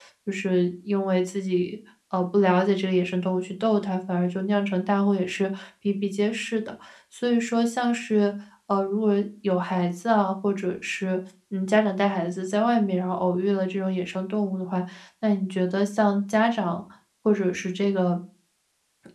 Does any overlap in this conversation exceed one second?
No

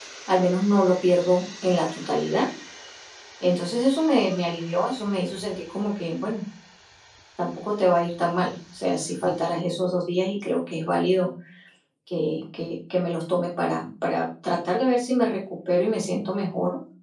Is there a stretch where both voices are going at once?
No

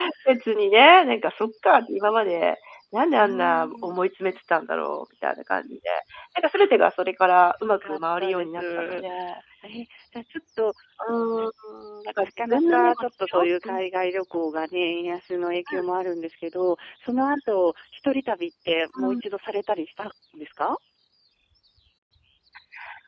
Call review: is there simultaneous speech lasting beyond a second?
Yes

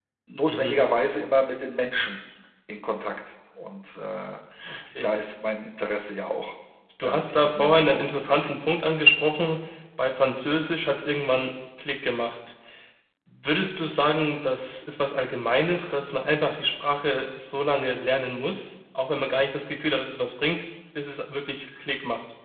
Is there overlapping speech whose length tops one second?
Yes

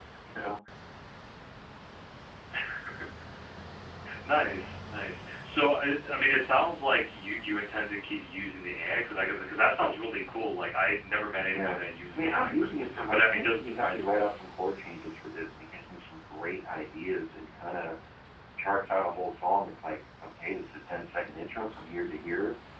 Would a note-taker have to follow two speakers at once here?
Yes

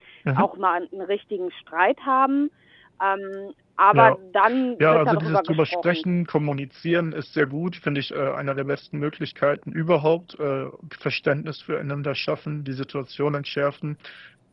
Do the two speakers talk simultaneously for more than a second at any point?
Yes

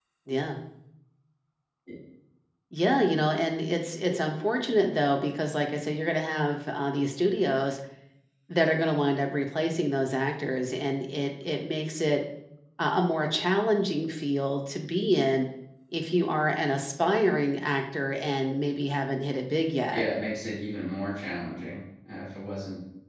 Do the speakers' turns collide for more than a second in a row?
No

